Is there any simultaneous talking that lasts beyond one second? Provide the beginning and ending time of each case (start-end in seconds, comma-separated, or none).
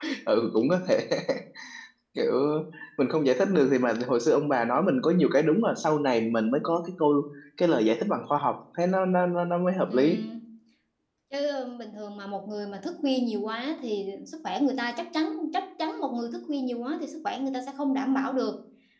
none